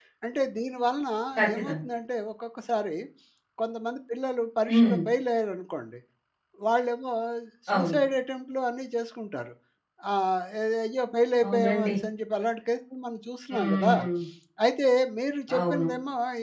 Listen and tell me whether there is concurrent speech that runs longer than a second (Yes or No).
No